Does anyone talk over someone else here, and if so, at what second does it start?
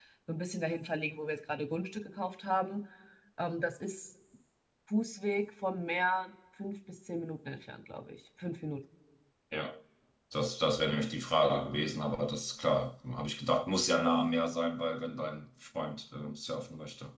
none

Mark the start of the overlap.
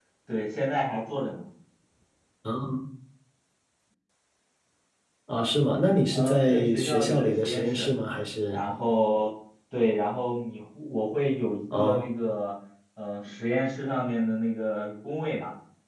6.1 s

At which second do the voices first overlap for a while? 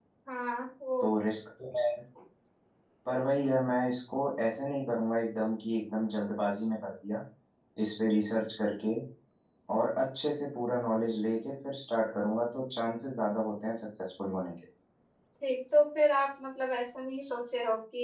none

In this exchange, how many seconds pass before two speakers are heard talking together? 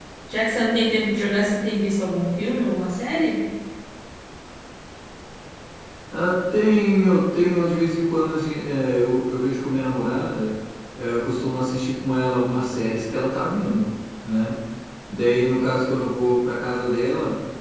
none

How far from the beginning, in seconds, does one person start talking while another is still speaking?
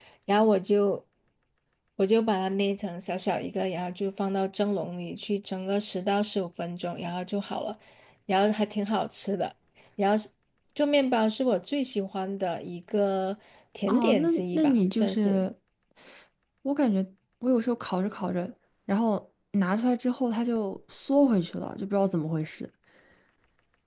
13.9 s

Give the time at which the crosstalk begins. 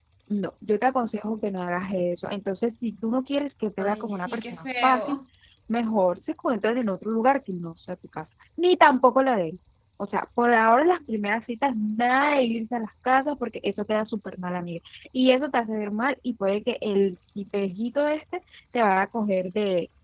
3.8 s

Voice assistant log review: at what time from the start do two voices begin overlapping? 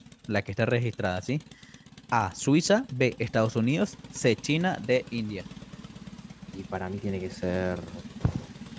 none

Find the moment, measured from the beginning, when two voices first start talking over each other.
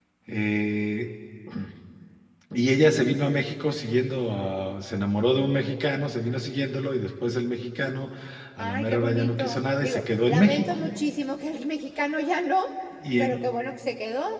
8.6 s

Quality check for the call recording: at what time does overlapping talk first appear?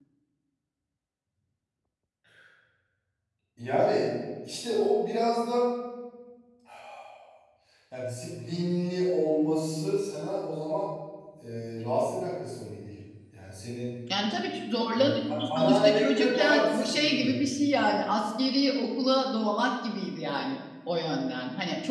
15.0 s

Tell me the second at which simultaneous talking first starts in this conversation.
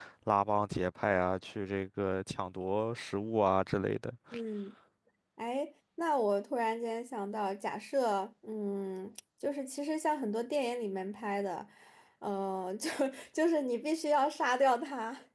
none

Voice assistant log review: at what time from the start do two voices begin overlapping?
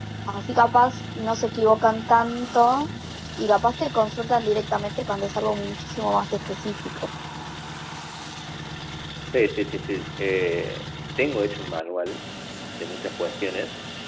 none

